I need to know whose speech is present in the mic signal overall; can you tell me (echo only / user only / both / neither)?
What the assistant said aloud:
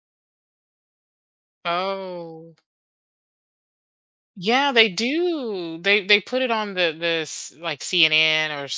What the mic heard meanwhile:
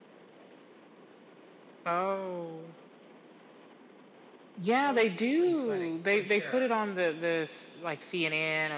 both